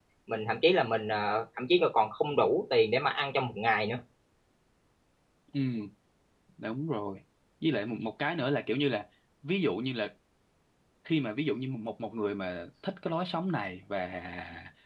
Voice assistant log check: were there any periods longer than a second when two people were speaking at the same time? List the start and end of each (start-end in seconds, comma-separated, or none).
none